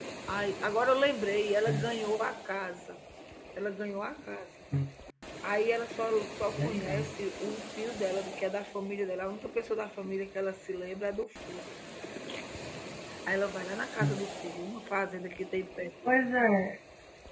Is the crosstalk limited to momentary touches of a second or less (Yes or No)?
Yes